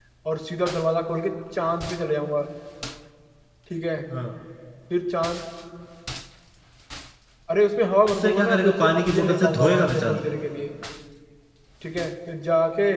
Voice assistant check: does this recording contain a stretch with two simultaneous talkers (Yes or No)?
Yes